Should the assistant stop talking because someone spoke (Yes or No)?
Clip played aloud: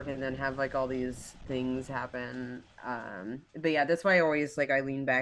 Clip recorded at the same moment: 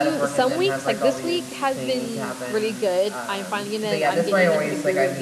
Yes